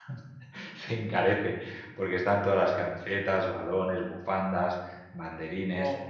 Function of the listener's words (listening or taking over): listening